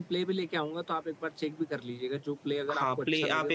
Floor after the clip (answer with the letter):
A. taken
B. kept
A